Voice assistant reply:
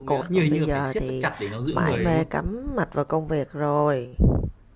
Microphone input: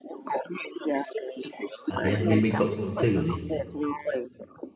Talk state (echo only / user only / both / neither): both